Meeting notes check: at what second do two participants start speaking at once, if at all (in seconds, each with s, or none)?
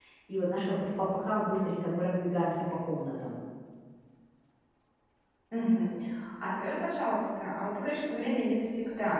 none